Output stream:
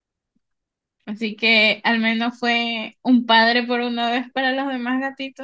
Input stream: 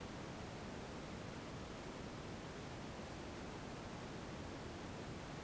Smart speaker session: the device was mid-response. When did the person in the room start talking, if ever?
none

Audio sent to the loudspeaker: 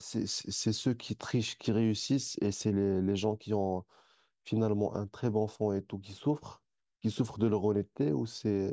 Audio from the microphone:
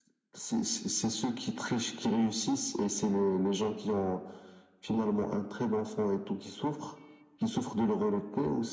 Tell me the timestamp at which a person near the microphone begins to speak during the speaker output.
none

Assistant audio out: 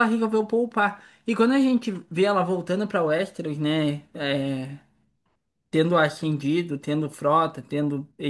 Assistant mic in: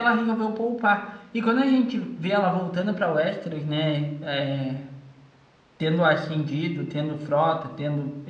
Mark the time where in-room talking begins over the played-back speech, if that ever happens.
none

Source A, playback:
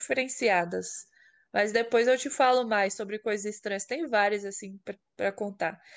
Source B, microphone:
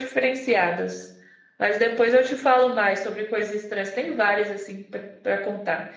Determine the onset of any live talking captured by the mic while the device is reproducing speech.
none

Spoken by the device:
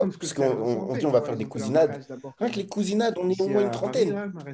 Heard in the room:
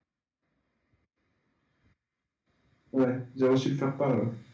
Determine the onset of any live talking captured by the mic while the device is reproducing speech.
2.9 s

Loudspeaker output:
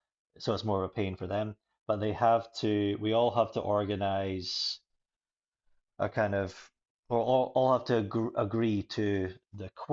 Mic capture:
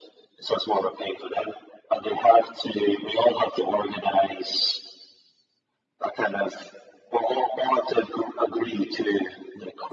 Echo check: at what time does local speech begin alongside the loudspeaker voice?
none

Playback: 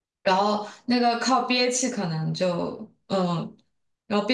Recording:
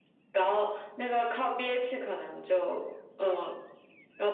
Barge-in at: none

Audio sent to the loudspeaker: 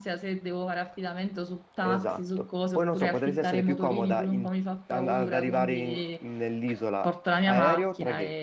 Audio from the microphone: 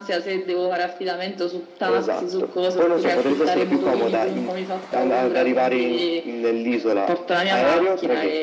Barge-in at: none

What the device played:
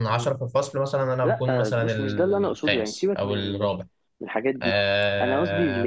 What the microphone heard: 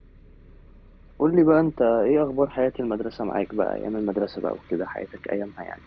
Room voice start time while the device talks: 1.2 s

